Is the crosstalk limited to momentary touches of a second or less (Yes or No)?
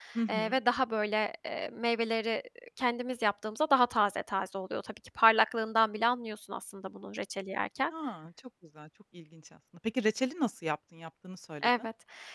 Yes